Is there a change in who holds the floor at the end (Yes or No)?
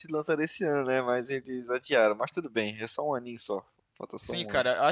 Yes